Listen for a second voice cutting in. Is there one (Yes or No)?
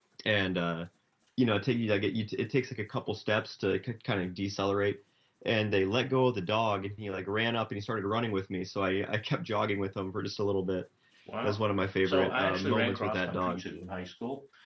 Yes